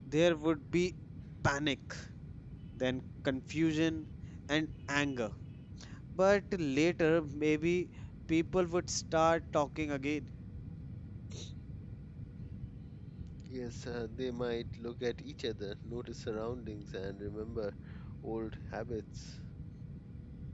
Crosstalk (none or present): none